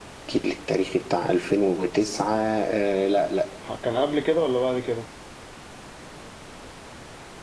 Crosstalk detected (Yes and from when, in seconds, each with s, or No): No